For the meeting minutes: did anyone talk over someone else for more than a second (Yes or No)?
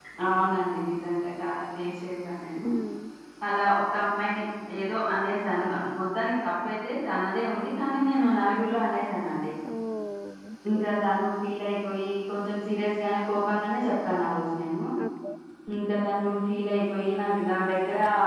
No